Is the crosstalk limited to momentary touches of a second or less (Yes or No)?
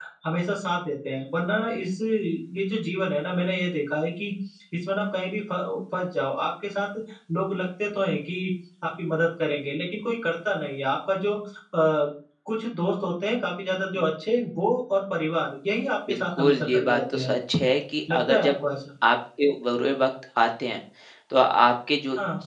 No